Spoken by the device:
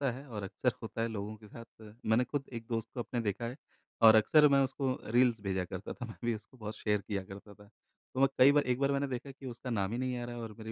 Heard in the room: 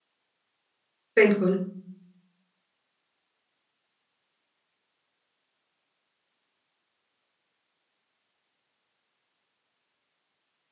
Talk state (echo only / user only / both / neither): user only